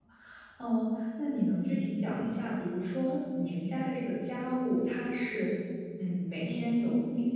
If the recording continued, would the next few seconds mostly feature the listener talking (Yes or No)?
No